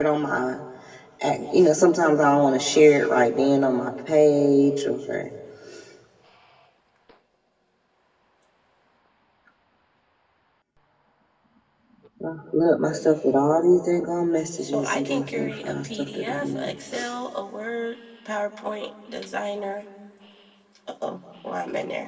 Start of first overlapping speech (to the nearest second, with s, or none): 15 s